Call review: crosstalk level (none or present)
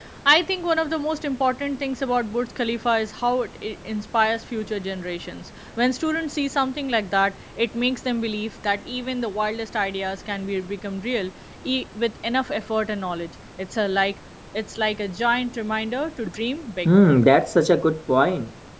none